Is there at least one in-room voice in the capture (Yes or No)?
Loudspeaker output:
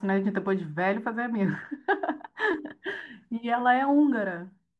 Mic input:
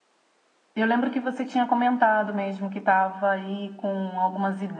Yes